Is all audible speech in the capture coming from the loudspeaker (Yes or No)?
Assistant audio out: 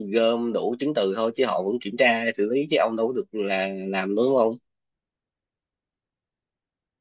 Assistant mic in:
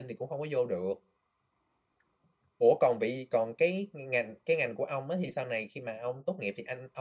No